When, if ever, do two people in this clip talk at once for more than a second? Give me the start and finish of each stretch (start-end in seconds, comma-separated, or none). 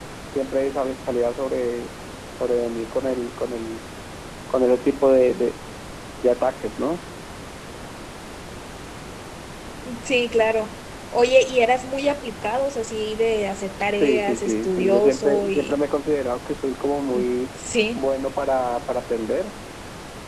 13.9-15.8